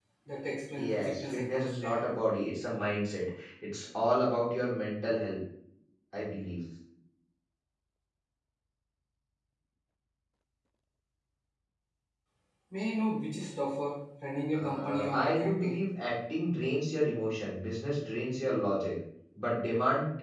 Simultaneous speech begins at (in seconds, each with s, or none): 0.8 s